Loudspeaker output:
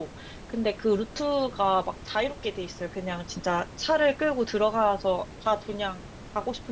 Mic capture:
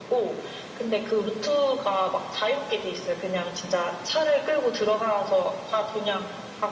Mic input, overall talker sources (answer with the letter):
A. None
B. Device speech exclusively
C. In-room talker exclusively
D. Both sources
B